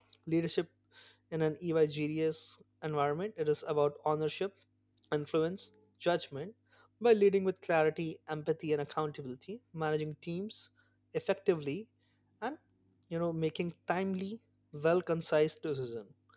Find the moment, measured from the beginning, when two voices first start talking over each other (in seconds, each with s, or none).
none